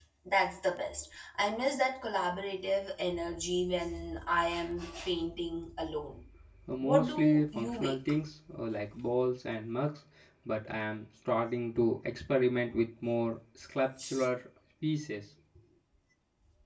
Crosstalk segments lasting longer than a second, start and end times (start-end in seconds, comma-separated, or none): 6.8-8.1